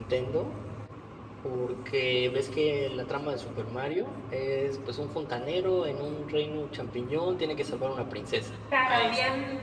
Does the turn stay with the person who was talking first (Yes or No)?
No